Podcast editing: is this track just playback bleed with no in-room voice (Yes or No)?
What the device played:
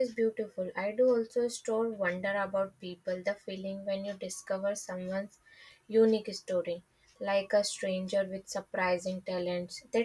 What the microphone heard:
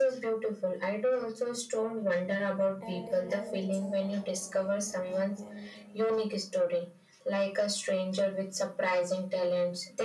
No